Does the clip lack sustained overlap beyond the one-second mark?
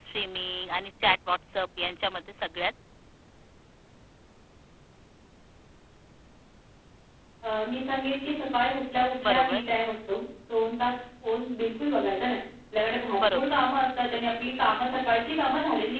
Yes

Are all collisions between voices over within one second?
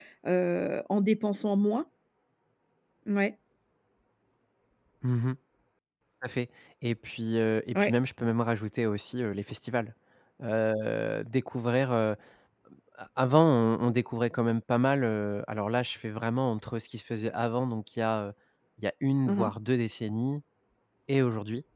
Yes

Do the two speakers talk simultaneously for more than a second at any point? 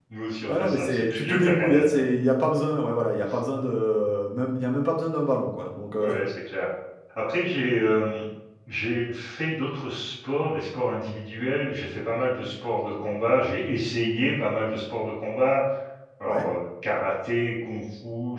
Yes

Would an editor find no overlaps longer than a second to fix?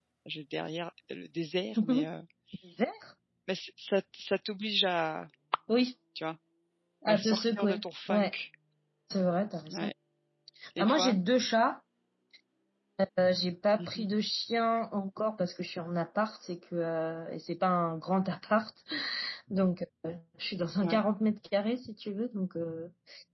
No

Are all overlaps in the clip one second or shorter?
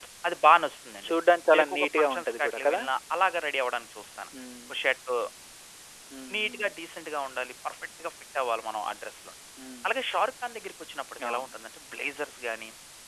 No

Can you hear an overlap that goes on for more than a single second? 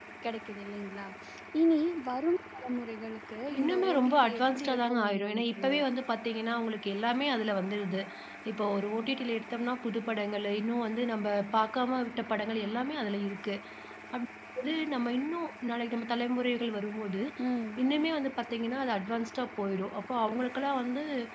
Yes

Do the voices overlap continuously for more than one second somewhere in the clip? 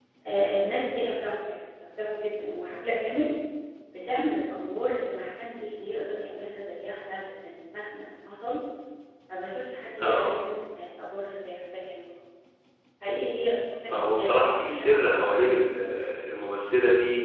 Yes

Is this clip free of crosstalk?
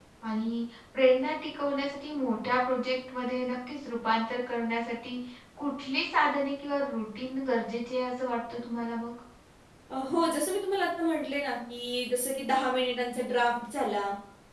Yes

